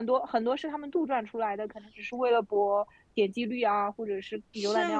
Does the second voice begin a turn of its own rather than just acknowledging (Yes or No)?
Yes